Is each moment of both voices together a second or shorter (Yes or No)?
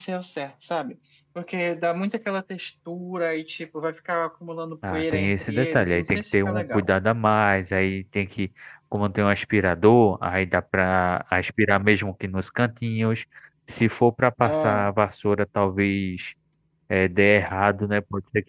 No